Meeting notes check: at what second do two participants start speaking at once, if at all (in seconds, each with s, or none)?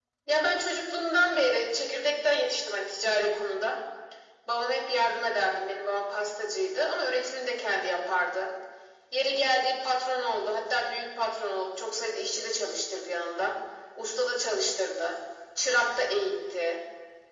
none